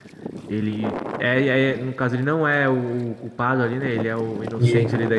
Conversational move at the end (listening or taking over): listening